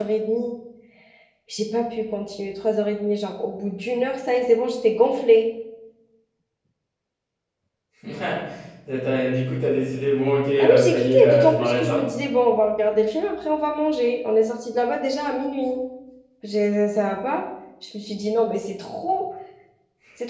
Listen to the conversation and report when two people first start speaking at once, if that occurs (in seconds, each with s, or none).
10.6 s